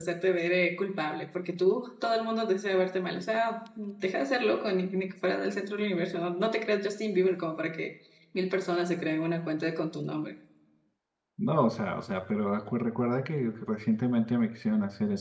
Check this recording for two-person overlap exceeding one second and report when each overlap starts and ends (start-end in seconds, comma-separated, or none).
none